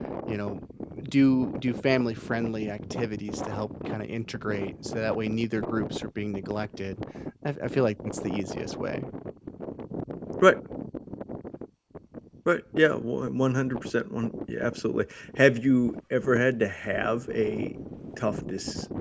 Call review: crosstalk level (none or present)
none